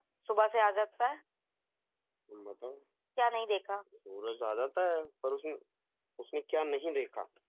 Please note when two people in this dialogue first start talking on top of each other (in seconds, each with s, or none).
none